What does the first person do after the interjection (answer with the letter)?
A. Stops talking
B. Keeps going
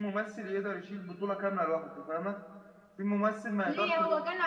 A